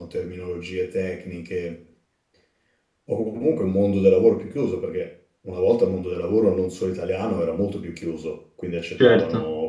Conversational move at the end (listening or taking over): listening